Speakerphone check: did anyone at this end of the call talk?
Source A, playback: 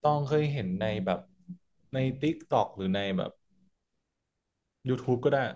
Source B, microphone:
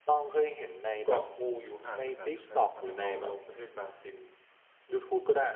Yes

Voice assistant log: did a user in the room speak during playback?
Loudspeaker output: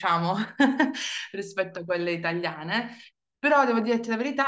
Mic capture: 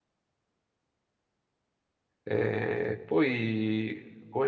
Yes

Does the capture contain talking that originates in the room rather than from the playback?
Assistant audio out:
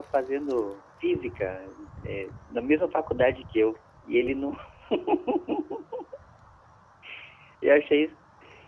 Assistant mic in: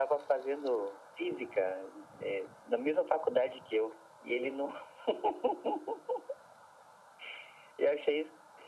No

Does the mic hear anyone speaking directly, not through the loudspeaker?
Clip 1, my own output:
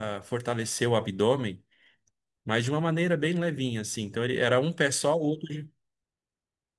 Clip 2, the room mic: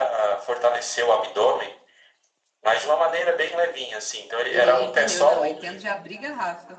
Yes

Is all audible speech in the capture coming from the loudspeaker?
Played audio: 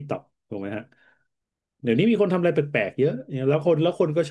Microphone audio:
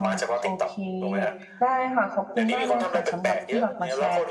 No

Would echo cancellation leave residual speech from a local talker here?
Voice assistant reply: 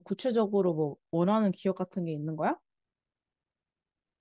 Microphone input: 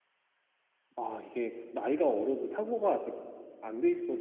Yes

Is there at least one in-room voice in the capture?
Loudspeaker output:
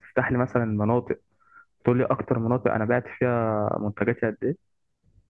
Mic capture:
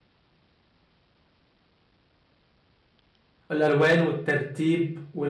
Yes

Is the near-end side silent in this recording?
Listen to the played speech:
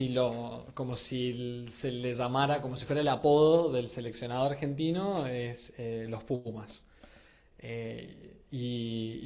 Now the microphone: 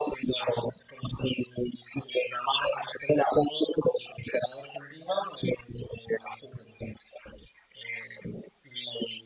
Yes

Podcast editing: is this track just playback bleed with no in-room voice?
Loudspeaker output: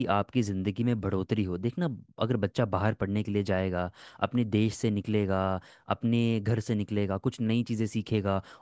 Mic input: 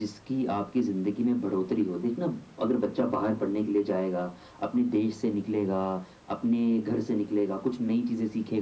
Yes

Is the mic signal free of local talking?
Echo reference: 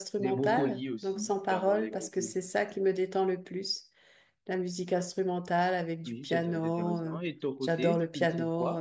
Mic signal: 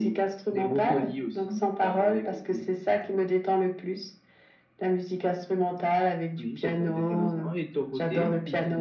Yes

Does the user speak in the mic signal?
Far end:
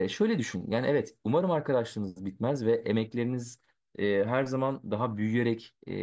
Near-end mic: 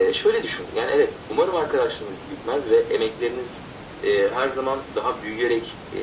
No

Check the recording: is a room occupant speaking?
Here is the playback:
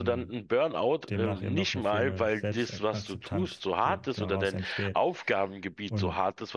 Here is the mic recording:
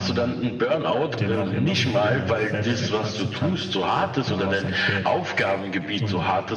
Yes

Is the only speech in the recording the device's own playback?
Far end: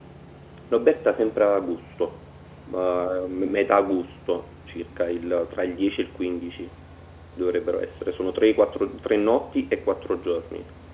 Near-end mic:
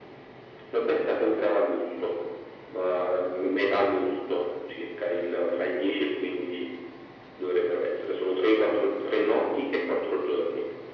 Yes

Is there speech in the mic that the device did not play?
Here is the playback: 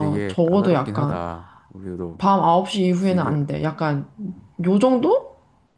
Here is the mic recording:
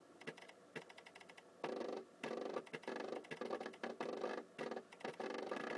No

